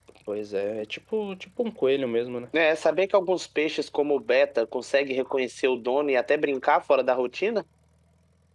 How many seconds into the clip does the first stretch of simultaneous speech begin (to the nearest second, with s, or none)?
none